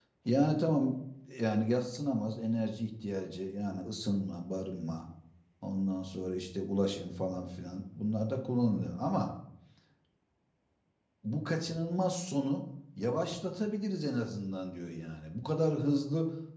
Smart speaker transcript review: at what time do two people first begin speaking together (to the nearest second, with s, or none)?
none